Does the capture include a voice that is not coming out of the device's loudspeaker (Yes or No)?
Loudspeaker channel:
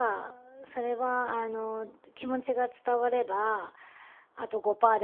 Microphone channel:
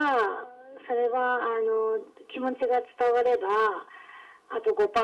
No